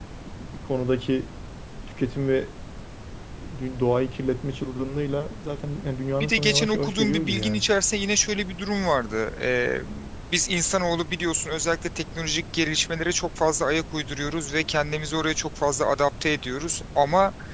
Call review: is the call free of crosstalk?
No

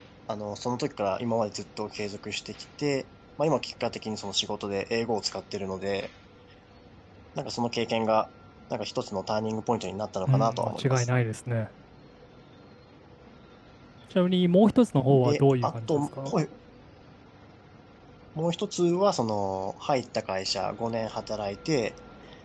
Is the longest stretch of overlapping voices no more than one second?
No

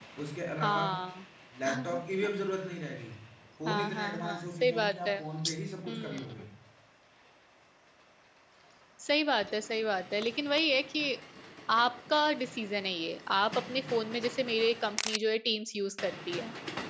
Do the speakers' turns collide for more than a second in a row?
Yes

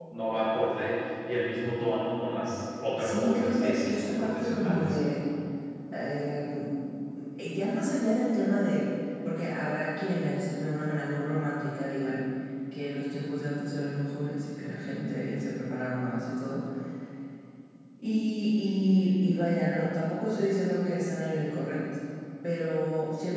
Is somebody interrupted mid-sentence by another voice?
Yes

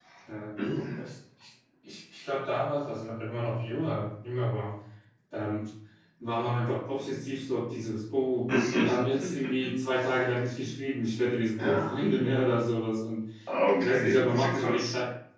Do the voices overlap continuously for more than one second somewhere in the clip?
Yes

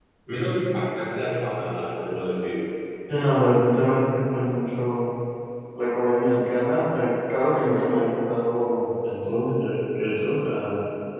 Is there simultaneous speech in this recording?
No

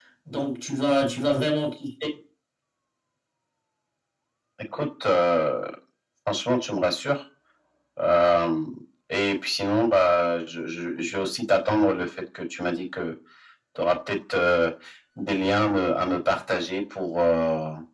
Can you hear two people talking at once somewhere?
No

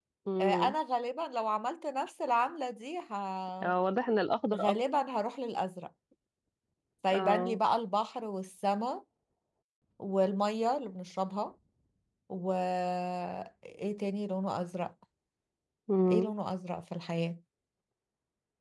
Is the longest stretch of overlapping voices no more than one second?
Yes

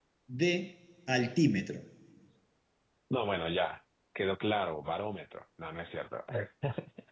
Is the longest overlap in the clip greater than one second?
No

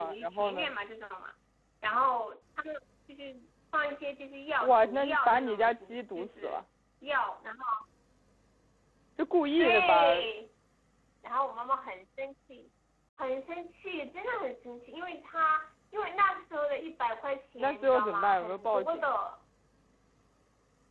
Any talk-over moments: Yes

